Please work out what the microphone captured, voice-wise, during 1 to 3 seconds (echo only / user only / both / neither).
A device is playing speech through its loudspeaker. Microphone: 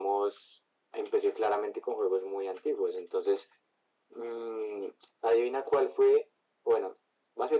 echo only